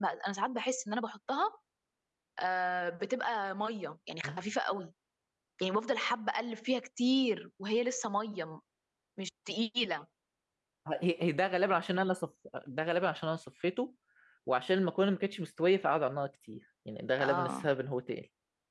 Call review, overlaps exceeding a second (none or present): none